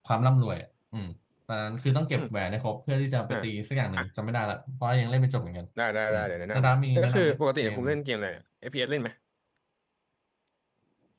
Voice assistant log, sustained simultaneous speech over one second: present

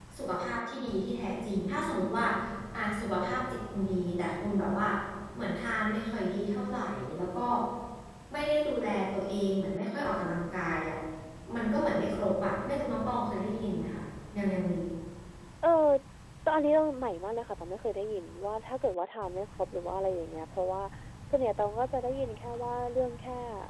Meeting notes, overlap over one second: none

